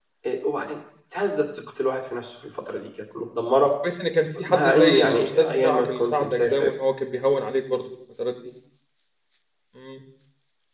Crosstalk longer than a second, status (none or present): present